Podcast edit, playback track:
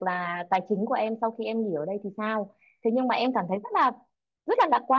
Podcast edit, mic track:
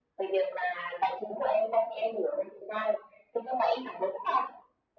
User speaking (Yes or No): No